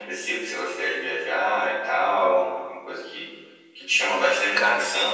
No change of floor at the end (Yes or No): Yes